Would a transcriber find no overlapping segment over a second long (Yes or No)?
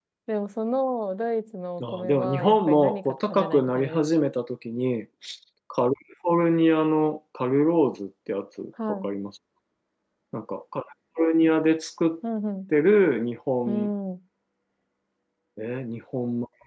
No